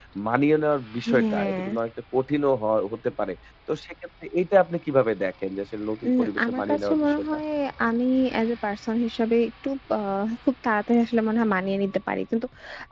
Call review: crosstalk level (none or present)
present